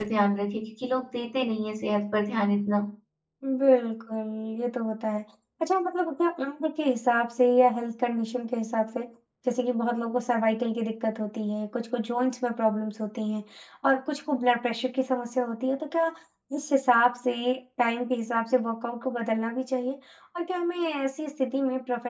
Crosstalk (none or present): none